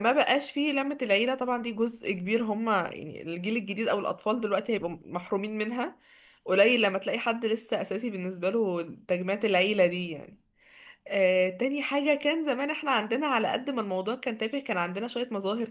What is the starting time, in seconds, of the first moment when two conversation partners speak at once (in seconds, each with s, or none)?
none